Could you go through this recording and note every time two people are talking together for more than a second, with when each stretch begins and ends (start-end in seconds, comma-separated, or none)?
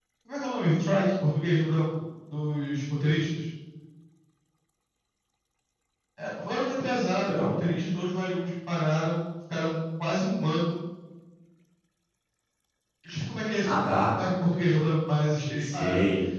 none